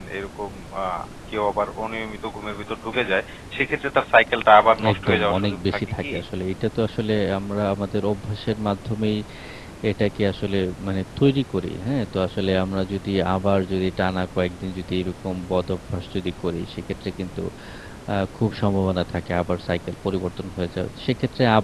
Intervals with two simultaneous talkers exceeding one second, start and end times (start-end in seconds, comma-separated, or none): 4.9-6.1